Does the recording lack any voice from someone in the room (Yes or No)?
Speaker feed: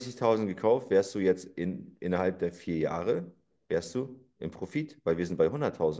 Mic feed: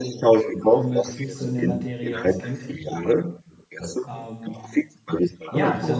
No